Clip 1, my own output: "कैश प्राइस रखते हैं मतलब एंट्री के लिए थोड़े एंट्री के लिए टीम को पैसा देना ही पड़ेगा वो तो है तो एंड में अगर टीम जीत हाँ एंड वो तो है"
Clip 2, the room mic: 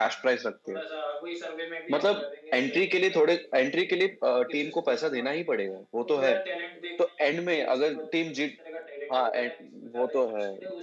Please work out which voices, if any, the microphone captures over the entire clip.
both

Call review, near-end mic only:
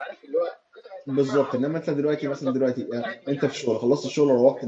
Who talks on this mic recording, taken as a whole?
both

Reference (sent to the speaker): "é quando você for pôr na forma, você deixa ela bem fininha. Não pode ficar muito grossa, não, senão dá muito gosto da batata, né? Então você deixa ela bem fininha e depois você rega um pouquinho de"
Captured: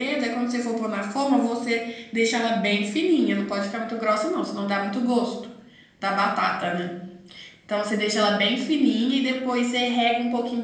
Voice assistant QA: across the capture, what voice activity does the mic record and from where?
echo only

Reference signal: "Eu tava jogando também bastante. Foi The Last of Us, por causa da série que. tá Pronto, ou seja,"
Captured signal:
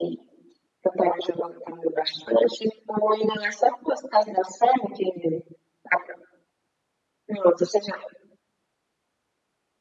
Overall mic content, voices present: echo only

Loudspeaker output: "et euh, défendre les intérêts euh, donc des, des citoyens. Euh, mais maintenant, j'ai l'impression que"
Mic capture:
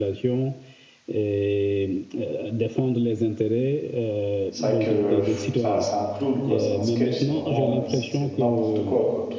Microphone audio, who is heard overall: both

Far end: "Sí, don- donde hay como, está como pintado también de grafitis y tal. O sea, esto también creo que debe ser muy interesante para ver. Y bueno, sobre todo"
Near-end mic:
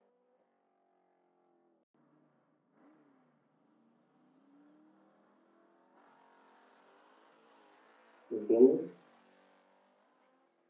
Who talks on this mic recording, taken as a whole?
user only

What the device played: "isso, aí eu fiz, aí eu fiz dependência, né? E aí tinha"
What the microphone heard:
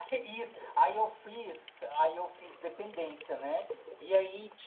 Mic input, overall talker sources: echo only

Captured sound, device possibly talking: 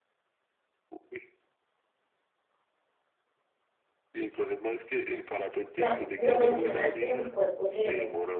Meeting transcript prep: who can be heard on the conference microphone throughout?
both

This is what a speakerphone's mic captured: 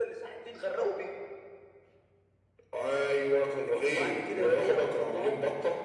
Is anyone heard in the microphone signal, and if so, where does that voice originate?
echo only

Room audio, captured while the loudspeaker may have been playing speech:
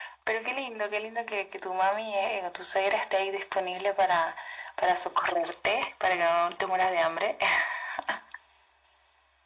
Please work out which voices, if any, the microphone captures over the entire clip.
echo only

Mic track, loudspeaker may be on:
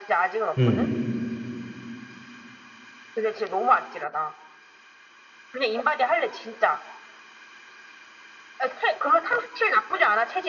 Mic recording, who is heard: both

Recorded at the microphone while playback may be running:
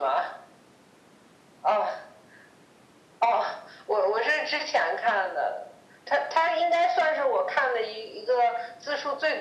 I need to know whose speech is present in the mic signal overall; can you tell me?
echo only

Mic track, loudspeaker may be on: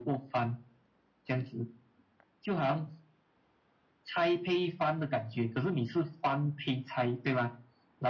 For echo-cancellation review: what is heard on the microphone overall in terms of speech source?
echo only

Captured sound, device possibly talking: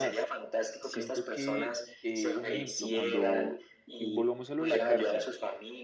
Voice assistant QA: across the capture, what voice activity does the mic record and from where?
both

